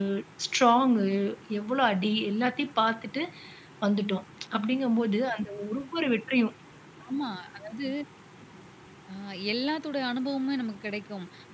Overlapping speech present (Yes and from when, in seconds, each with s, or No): No